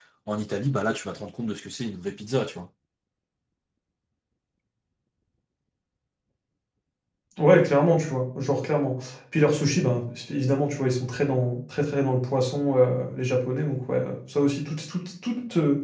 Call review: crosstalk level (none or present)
none